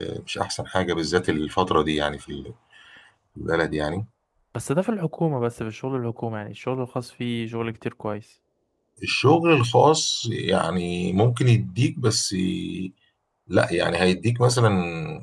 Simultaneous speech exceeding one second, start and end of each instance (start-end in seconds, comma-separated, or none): none